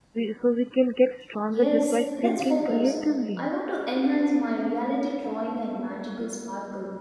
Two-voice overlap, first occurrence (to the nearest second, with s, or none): 1 s